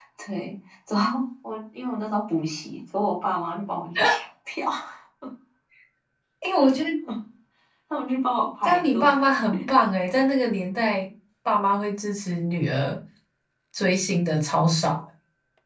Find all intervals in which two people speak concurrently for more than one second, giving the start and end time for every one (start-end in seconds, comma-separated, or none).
none